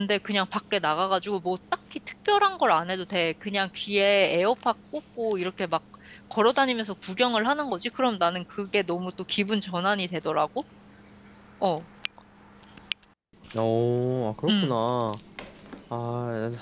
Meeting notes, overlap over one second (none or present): none